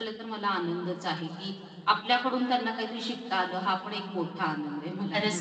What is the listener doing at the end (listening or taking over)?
taking over